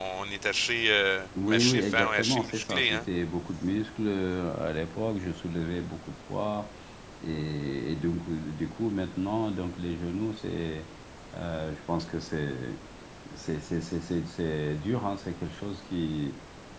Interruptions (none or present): present